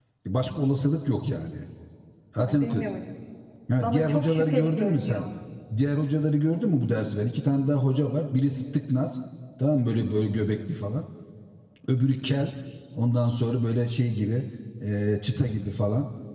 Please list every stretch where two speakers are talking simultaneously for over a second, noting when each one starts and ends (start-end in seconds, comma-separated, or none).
3.8-5.2